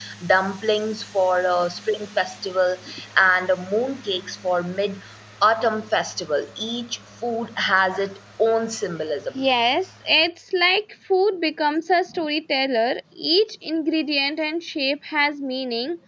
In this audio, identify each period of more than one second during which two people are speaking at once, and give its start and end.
none

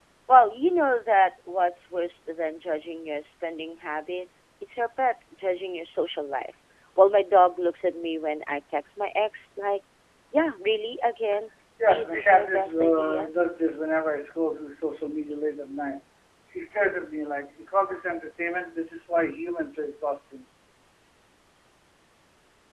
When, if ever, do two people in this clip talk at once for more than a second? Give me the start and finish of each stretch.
11.8-13.3

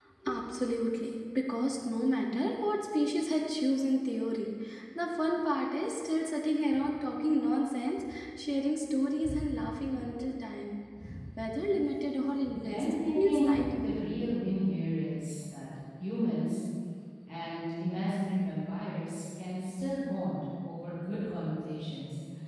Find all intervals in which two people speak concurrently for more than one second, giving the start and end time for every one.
12.7-13.9

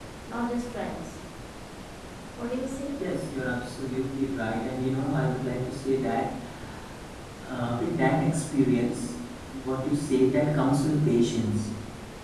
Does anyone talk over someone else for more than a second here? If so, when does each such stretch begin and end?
none

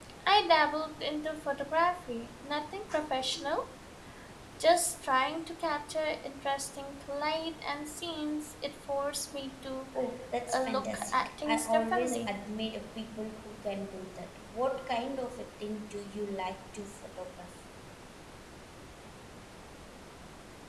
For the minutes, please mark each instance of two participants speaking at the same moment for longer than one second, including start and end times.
10.5-12.3

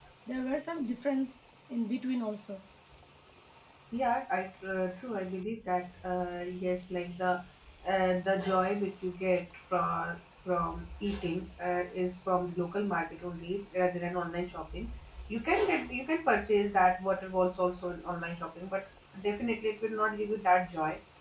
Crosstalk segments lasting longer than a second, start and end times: none

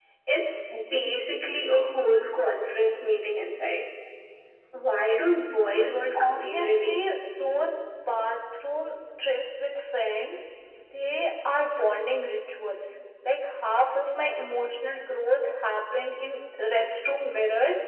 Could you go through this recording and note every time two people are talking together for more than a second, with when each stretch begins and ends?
5.7-7.0

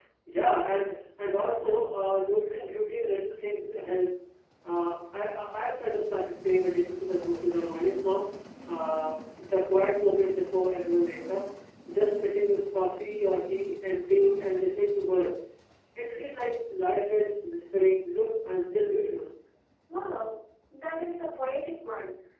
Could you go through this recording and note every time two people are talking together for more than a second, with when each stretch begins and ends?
none

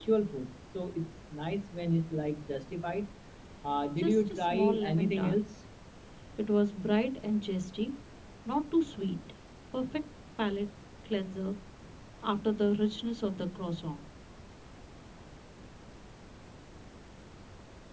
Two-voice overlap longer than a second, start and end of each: 4.0-5.4

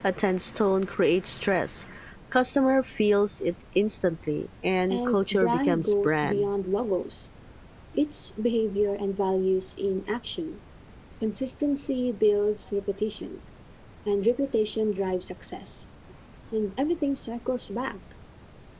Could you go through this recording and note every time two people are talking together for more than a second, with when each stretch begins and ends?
4.9-6.5

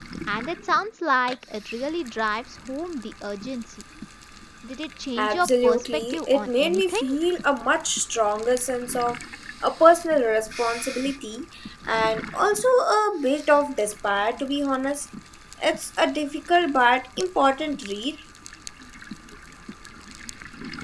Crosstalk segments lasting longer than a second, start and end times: 5.2-7.0

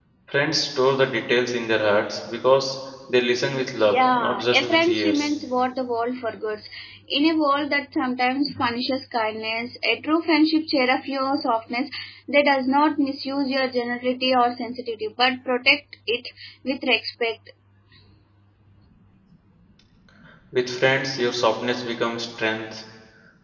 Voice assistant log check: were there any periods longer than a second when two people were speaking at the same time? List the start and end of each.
3.8-5.3

